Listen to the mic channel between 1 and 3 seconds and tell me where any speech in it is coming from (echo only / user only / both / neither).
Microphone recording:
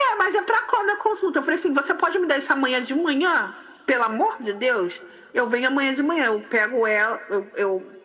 echo only